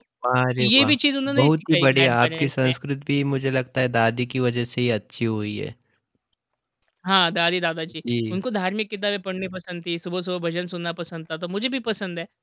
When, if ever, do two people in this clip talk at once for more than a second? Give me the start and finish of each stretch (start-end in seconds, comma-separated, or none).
1.4-2.7